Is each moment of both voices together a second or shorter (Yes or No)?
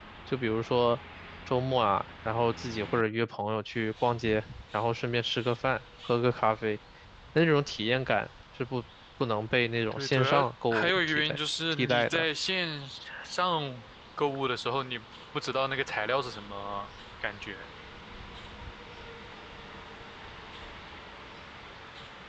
No